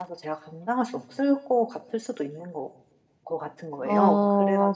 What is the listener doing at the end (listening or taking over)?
taking over